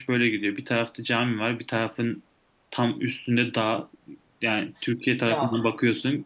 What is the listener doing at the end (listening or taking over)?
listening